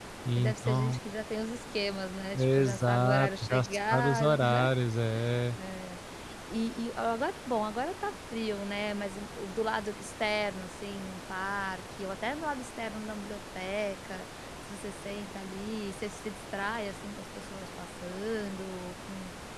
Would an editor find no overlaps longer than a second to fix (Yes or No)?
No